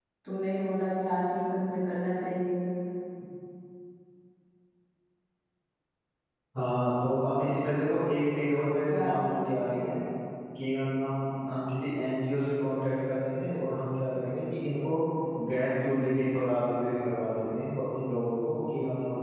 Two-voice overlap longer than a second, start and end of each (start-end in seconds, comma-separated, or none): none